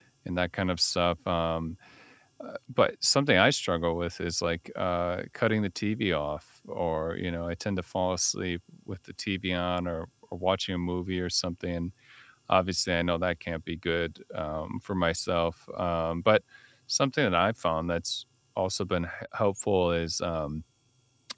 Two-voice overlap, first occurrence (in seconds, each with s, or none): none